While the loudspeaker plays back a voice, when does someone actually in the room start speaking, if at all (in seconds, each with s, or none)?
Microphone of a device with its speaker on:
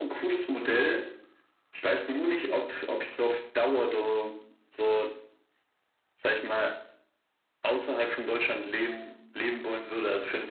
2.5 s